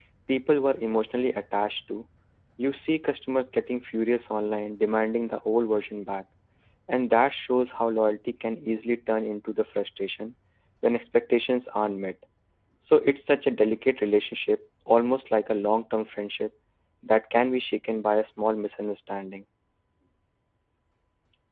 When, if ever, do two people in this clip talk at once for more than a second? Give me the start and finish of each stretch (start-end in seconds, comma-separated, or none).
none